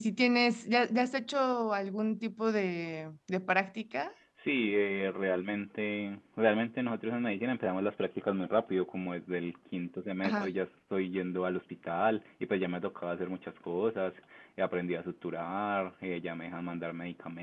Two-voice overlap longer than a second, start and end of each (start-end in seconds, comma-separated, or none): none